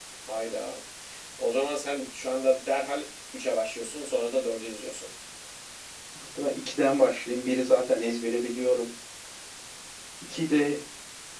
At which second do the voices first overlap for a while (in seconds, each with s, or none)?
none